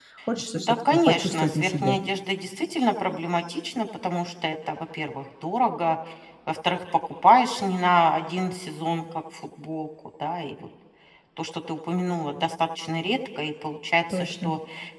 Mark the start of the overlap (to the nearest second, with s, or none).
1 s